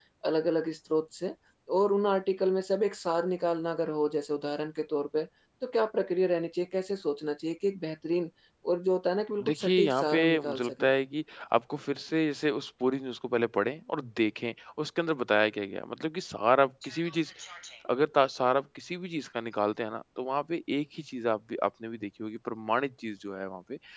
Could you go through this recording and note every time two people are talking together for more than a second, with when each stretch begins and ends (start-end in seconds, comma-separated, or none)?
9.4-10.9